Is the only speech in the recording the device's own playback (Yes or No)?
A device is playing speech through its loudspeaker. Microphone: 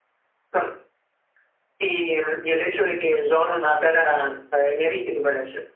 Yes